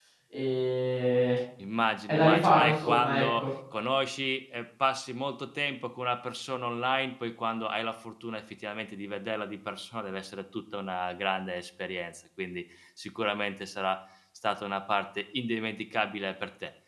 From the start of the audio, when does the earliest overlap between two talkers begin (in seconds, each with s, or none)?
2.1 s